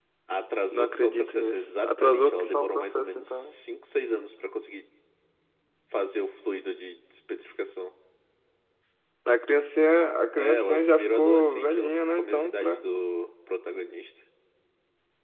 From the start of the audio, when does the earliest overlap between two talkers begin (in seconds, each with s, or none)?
0.7 s